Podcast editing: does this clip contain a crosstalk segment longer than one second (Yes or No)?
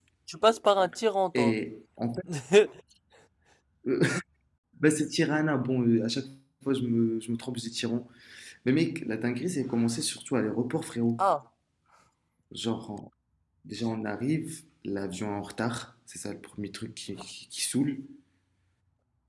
No